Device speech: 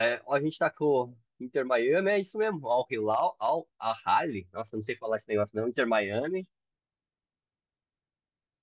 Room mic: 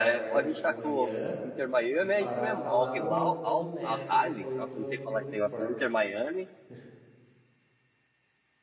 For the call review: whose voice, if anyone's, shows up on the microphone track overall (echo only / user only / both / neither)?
both